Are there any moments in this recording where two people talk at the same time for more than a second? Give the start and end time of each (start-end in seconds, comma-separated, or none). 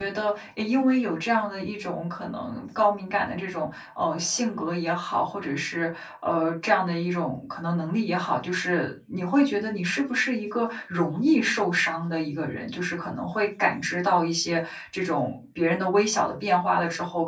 none